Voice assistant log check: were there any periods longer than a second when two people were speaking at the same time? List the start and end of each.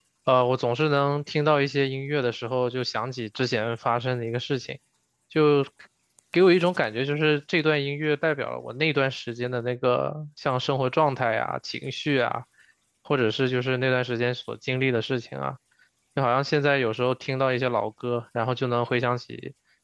none

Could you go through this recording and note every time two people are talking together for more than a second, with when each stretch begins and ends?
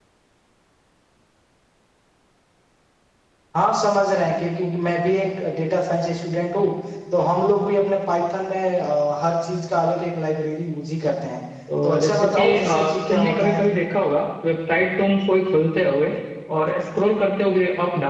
11.8-13.6

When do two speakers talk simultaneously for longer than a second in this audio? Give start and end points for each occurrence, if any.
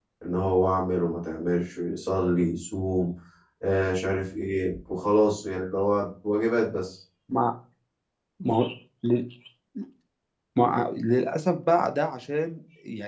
none

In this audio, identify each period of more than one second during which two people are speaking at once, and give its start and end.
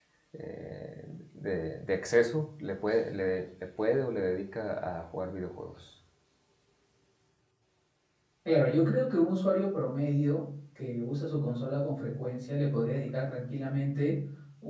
none

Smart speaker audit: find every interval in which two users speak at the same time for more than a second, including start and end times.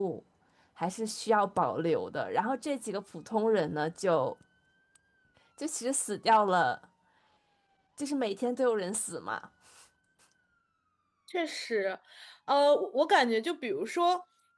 none

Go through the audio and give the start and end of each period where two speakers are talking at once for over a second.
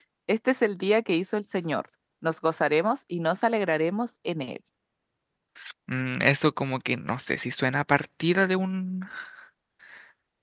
none

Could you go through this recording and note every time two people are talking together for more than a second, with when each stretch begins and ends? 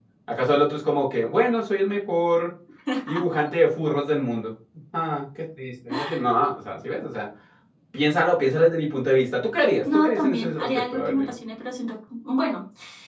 9.9-11.3

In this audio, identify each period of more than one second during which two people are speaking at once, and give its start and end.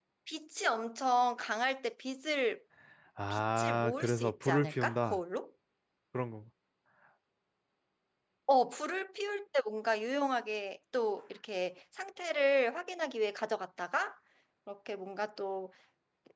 3.3-5.2

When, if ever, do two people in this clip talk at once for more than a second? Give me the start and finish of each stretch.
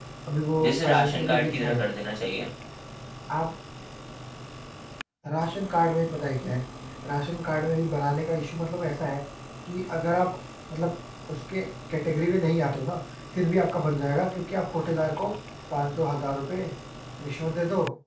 0.6-1.8

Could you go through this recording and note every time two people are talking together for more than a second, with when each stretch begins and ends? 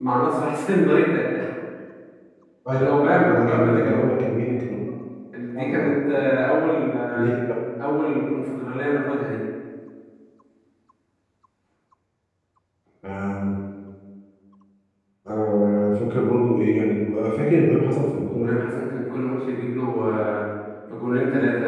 2.7-4.1

